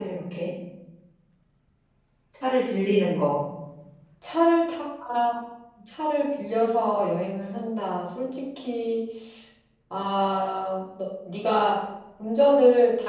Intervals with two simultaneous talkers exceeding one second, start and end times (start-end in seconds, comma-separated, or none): none